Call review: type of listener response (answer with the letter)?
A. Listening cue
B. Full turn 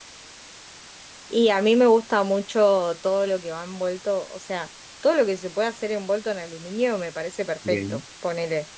A